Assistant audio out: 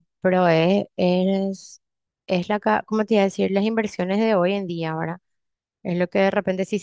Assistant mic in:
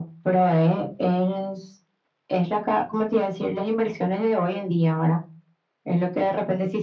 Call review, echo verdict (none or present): present